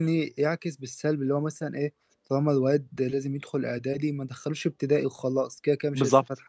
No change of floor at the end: No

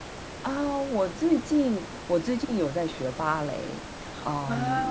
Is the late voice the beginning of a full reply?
No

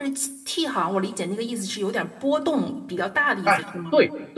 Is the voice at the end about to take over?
Yes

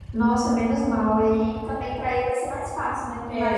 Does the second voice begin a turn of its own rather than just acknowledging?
No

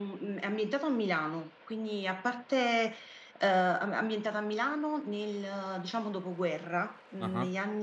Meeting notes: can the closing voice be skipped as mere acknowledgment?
Yes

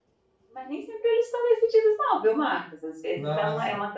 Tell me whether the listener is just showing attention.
Yes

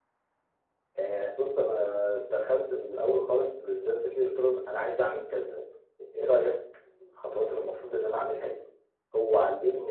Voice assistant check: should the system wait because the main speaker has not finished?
Yes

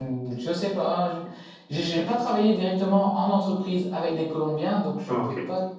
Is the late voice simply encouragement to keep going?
Yes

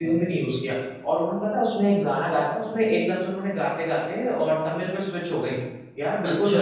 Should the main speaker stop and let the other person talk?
No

